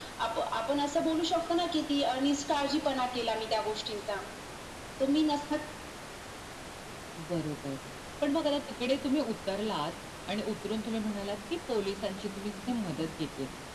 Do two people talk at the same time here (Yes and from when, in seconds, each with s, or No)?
No